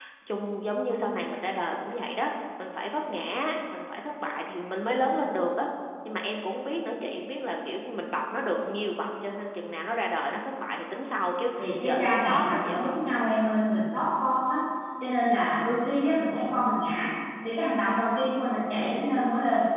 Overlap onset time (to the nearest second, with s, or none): 12 s